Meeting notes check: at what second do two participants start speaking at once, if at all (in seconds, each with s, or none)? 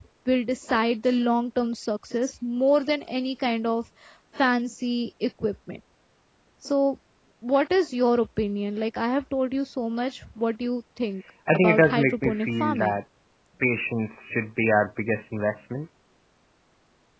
11.5 s